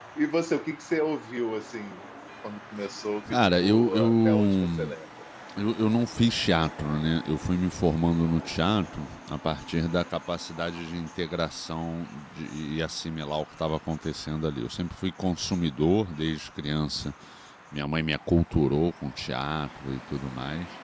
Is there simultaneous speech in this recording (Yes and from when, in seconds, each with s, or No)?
Yes, from 3.3 s